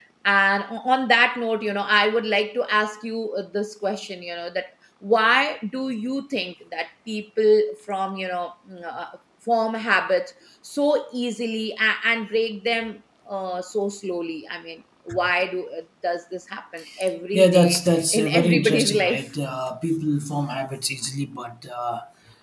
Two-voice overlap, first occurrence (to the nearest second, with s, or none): 17 s